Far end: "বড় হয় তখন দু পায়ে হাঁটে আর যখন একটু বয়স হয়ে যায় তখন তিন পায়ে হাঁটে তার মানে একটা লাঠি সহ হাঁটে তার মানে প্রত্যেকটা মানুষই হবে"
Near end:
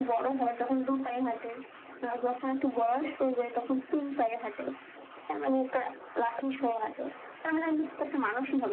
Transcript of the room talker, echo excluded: none

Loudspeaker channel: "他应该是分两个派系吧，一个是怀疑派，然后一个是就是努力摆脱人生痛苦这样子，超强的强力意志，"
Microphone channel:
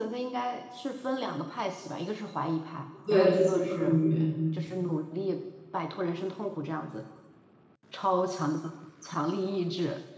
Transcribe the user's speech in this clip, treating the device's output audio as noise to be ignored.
对自己赋予。

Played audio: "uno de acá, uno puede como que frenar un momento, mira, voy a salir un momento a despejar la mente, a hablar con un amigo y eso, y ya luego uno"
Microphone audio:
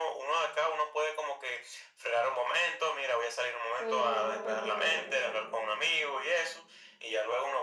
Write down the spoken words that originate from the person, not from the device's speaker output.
pero, pero pues,

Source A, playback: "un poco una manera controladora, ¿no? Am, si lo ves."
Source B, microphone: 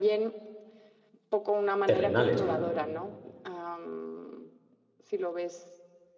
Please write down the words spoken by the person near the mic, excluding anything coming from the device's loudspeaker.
terrenales, ¿no?

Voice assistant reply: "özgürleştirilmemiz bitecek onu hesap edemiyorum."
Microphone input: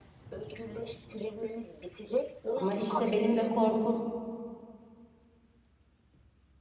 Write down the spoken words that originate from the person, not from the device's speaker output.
Ama işte benim de korkum

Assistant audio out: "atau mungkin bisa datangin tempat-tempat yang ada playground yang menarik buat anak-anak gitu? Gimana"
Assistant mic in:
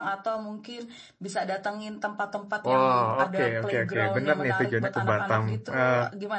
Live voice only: Wow, oke, oke, oke. Bener nih tujuannya ke Batam. Eh,

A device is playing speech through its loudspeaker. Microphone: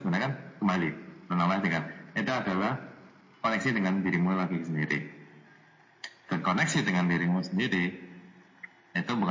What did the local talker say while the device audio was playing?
none

